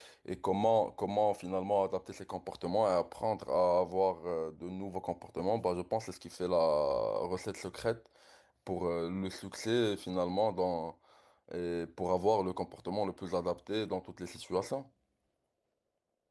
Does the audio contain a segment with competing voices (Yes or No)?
No